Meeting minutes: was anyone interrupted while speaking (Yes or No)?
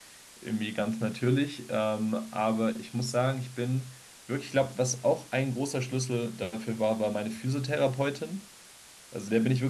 No